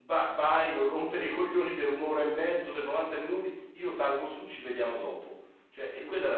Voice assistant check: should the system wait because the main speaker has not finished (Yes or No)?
Yes